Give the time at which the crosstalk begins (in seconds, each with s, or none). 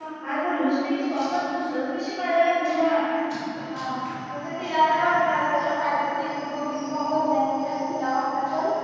none